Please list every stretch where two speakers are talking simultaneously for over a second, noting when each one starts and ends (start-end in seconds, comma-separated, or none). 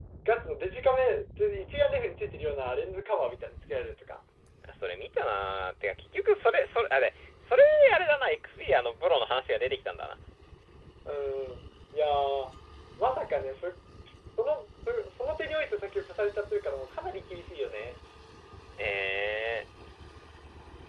none